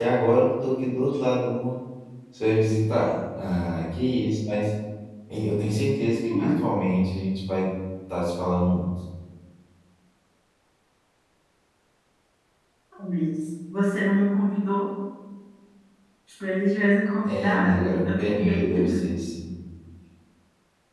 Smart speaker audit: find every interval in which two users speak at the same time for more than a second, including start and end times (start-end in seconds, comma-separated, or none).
17.2-19.0